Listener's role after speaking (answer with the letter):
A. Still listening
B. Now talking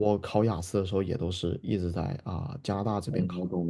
B